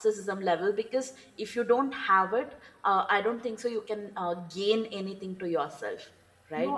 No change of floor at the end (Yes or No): No